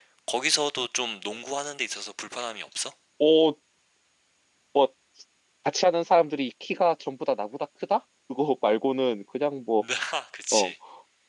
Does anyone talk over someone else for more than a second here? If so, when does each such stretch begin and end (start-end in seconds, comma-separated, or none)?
none